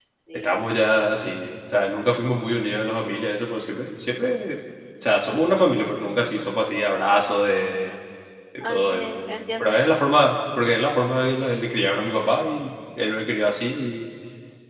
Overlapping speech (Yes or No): Yes